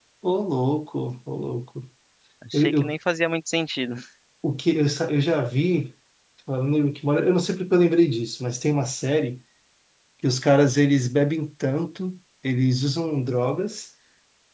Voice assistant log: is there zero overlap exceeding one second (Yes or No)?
Yes